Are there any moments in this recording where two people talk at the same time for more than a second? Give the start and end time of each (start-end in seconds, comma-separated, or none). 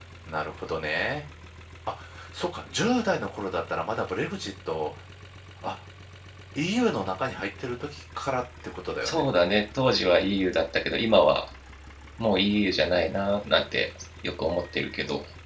none